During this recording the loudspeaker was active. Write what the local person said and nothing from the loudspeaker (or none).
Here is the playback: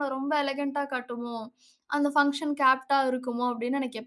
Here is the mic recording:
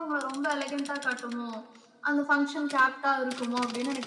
none